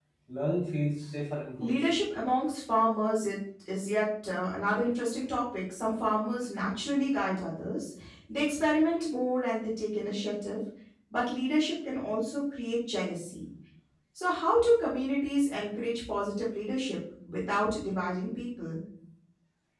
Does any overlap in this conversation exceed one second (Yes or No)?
No